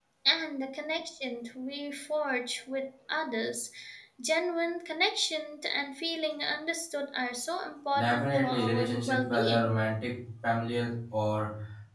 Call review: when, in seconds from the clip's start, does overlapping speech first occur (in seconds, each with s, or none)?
7.9 s